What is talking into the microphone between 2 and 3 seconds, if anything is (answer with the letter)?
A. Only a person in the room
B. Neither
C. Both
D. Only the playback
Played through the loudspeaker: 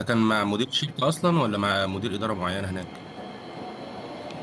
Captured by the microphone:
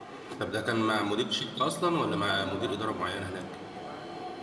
C